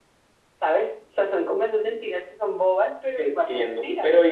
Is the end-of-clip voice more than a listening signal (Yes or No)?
Yes